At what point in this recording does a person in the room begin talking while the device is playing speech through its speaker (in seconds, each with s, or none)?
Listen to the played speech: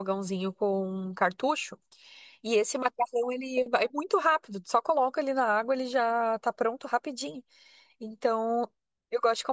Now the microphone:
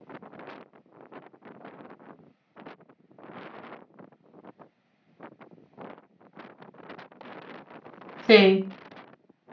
8.2 s